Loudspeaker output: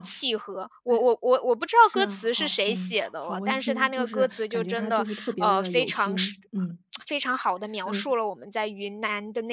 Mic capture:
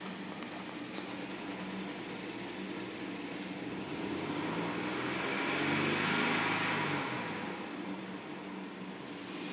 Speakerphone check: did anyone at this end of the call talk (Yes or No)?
No